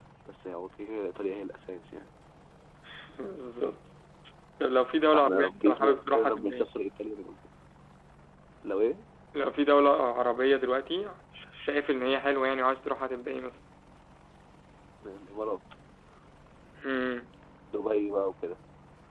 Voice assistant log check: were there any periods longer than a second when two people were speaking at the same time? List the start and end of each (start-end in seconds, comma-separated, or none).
5.1-6.7